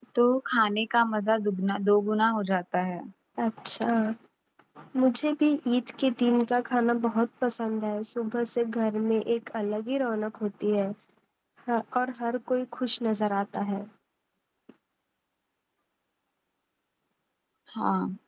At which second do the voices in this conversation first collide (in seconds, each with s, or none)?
none